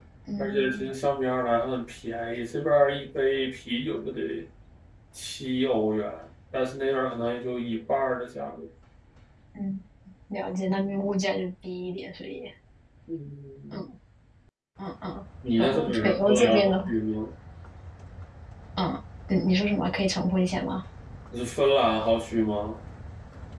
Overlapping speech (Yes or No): Yes